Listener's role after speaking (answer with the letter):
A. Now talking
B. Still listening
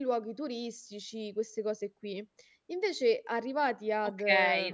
A